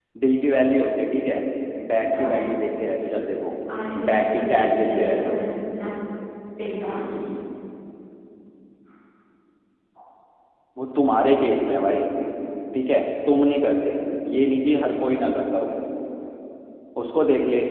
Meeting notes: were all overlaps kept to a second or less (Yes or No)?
No